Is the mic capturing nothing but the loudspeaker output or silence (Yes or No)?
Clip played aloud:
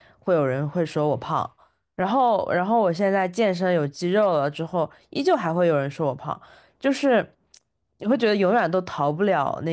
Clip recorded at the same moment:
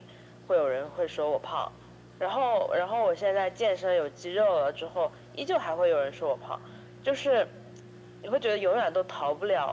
Yes